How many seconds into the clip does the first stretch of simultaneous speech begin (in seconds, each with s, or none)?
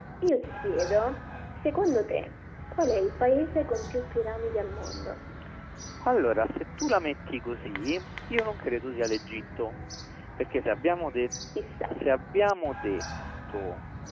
none